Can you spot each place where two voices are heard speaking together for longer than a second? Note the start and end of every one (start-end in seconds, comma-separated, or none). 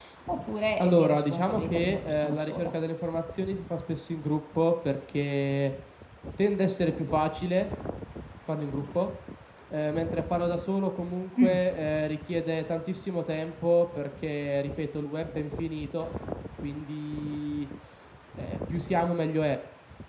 0.8-2.7